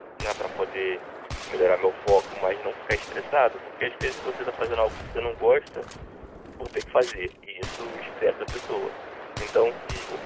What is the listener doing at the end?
listening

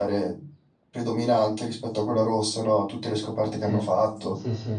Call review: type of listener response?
taking over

